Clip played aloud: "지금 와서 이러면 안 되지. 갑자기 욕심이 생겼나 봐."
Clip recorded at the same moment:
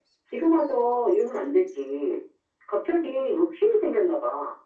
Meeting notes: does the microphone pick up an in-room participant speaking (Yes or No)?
No